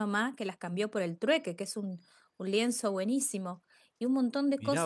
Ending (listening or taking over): taking over